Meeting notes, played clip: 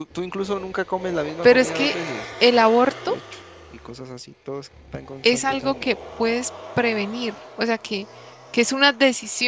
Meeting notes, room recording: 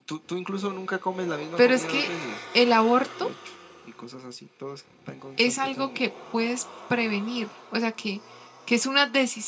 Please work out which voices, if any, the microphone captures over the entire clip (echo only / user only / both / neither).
echo only